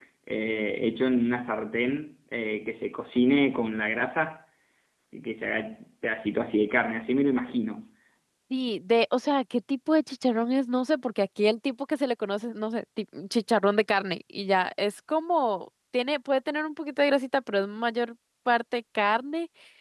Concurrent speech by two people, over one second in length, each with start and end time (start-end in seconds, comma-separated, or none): none